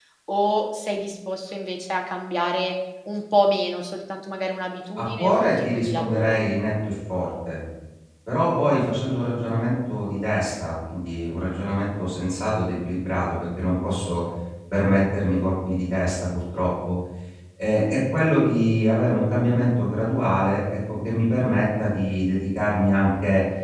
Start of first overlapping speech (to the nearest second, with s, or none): 5 s